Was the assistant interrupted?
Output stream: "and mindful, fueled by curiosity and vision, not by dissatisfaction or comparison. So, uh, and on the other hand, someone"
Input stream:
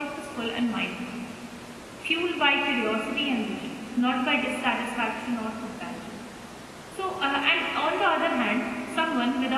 No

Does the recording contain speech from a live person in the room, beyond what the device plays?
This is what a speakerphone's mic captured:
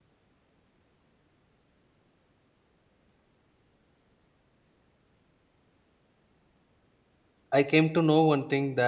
Yes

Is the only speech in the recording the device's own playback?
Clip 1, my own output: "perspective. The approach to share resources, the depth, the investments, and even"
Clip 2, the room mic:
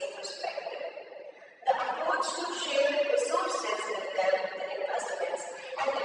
Yes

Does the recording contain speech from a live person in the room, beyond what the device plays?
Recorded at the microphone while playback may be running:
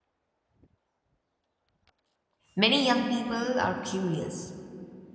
Yes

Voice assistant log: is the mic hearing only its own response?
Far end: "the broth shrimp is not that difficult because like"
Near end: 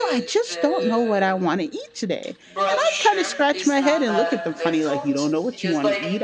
No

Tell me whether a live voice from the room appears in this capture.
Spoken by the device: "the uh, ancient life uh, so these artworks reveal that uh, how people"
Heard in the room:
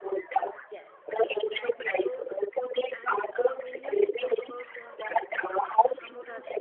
Yes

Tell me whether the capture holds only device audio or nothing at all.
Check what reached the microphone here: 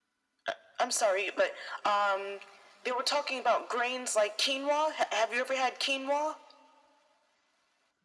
Yes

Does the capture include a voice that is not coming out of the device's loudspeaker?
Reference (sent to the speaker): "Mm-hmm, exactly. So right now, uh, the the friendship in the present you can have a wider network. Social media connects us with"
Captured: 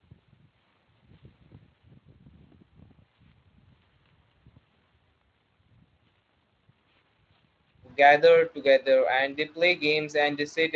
Yes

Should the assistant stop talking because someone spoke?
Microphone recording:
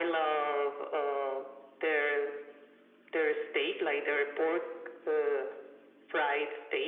No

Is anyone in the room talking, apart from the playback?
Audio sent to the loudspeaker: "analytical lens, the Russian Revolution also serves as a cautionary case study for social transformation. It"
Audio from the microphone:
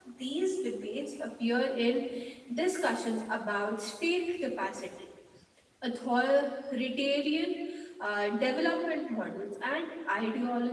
Yes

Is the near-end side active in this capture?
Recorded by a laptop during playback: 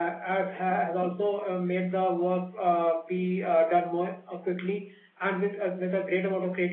No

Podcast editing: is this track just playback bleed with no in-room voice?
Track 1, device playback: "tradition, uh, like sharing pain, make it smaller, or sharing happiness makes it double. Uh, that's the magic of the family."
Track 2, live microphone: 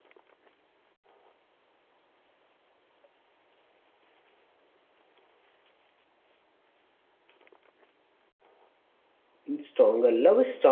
No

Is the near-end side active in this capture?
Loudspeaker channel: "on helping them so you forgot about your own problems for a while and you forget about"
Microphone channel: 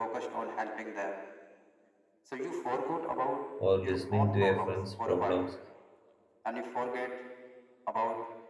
Yes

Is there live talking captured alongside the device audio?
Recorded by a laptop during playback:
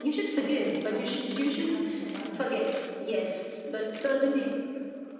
Yes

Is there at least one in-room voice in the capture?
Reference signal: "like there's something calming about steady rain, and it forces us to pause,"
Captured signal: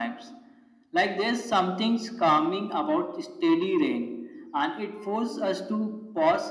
No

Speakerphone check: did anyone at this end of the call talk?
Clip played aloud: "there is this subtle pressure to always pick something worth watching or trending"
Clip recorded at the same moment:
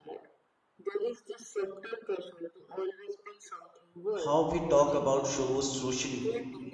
Yes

